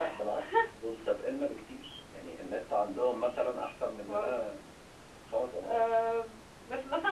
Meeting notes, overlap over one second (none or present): none